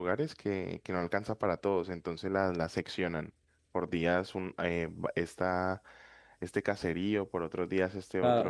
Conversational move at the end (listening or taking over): taking over